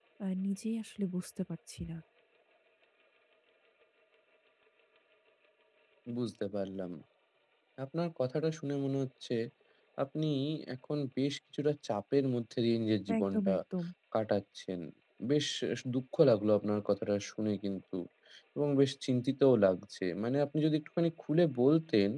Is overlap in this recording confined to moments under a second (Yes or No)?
Yes